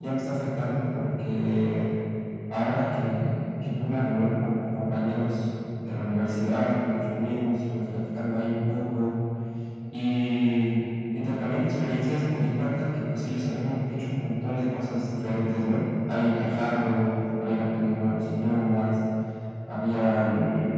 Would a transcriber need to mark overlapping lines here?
No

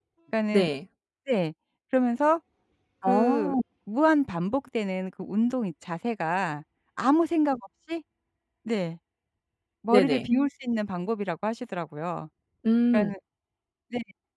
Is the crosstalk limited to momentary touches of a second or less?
Yes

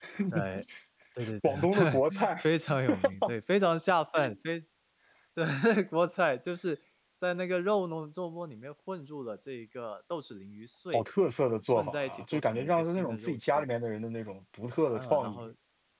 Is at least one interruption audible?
Yes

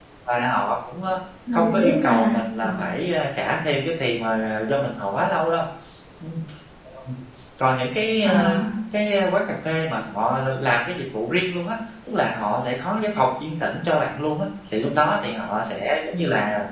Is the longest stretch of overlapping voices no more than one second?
No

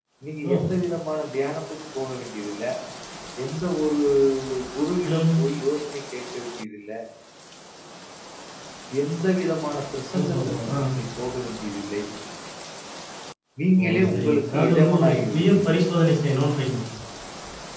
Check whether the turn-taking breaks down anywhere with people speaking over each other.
Yes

